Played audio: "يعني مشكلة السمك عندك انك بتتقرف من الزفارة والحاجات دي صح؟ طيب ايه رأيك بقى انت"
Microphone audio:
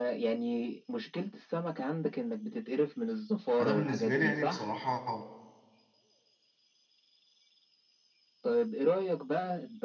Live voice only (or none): انا بالنسبة لي يعني بصراحة